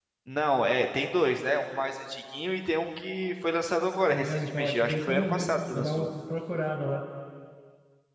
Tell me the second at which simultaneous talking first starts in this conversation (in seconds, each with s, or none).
4.1 s